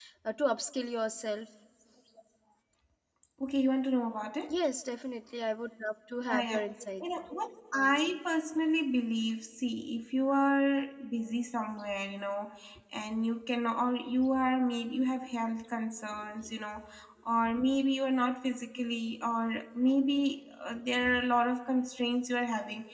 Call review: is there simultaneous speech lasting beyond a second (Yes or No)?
No